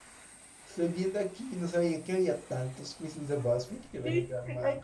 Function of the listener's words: taking over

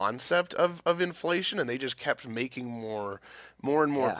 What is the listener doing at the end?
listening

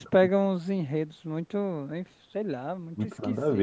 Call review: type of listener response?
taking over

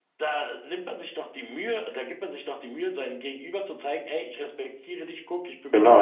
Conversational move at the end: taking over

